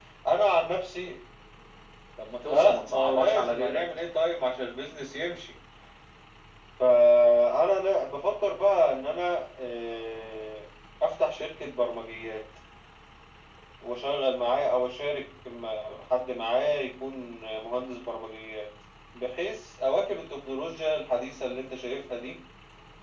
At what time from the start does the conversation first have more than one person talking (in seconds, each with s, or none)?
2.4 s